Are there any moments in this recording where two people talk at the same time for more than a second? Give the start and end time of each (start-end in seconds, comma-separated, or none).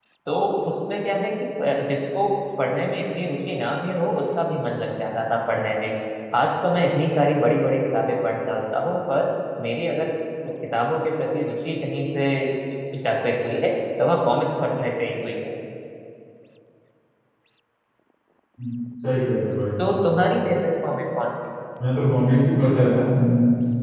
none